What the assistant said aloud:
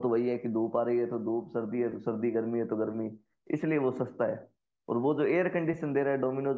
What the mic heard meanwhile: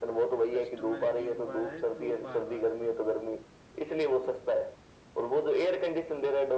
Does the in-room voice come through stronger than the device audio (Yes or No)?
No